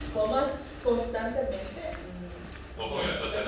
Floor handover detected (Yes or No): Yes